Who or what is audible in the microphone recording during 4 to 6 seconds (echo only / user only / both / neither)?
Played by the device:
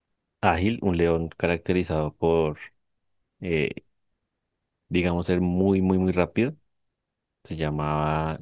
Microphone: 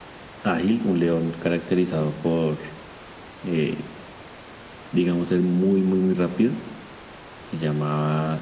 echo only